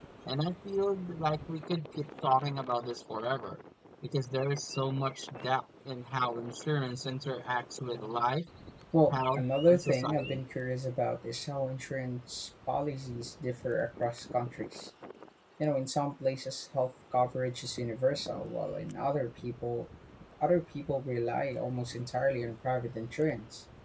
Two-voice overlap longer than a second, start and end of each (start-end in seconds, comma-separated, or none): 9.1-10.4